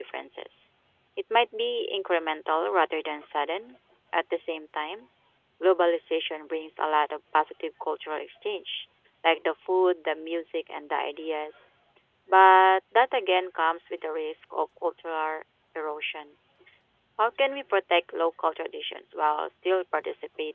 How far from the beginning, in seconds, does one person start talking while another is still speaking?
none

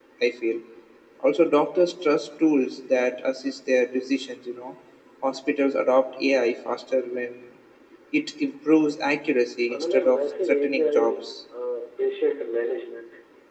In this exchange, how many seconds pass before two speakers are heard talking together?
9.7 s

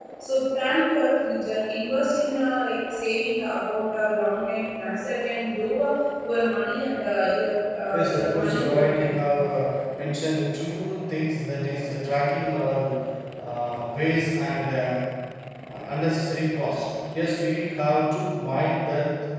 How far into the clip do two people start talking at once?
7.9 s

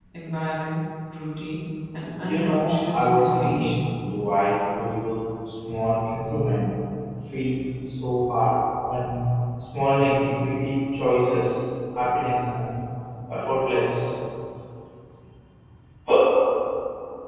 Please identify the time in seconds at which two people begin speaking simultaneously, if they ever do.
2.0 s

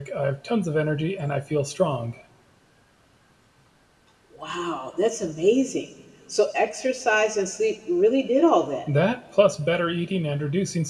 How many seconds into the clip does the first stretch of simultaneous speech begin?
none

